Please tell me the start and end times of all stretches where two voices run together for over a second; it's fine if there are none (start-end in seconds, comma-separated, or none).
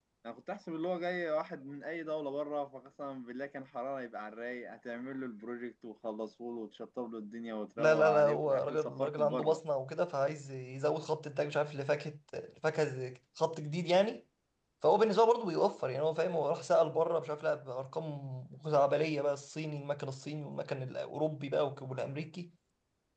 7.8-9.6